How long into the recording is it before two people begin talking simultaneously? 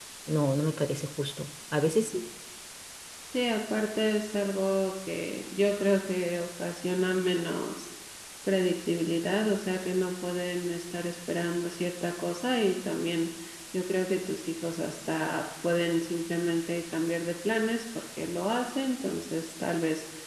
none

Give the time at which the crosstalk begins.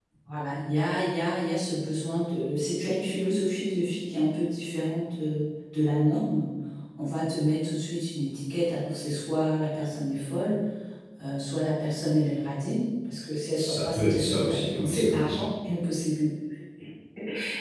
13.6 s

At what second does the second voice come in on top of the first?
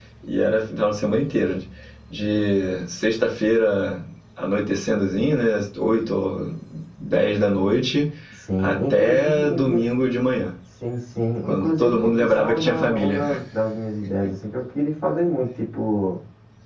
8.6 s

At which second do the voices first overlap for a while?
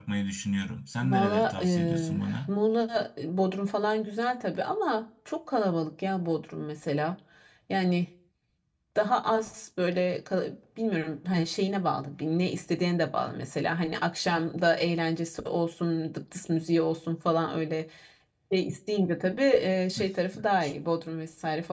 1.0 s

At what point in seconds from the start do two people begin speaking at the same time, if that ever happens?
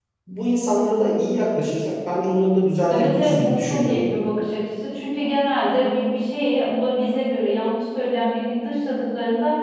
2.9 s

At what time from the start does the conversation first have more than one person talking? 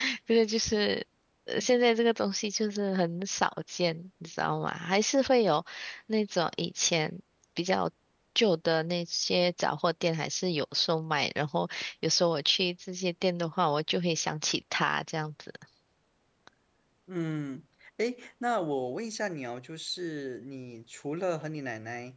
none

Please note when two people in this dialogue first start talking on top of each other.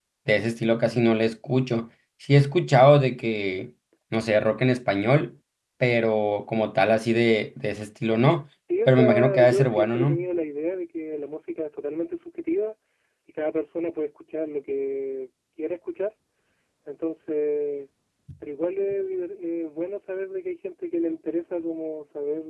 8.9 s

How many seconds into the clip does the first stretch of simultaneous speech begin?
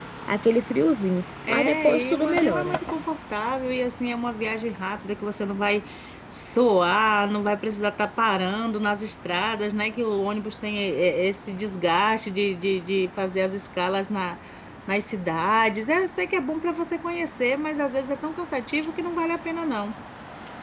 1.4 s

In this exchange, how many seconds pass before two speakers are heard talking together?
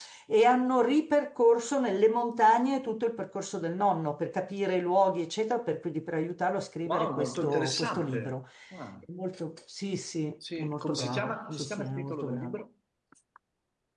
6.8 s

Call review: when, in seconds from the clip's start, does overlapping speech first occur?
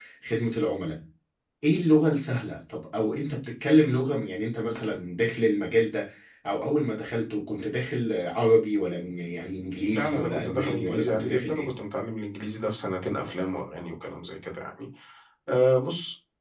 9.8 s

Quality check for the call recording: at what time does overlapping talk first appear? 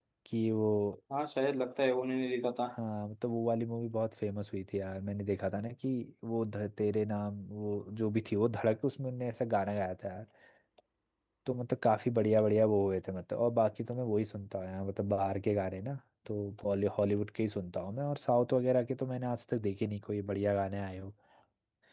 none

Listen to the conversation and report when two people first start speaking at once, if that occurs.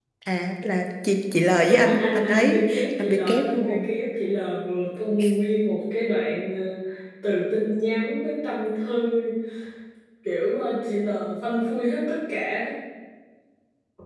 1.6 s

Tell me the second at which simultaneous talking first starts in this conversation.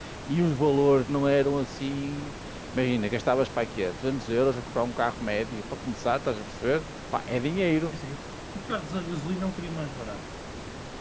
none

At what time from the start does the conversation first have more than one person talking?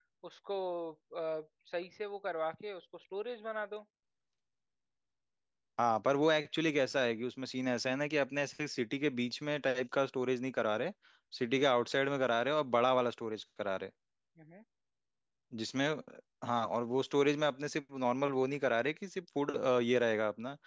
none

